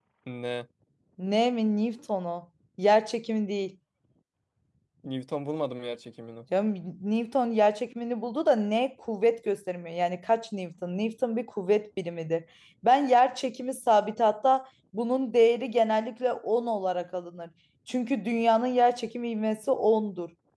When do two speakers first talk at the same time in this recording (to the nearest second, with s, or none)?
none